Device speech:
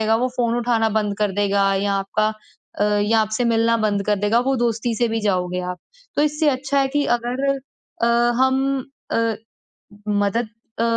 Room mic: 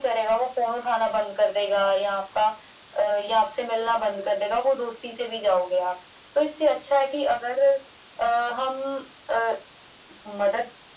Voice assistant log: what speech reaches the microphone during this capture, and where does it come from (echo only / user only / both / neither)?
echo only